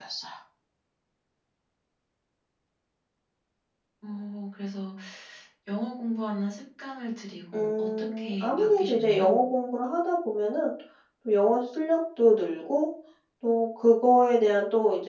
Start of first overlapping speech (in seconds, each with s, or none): 7.5 s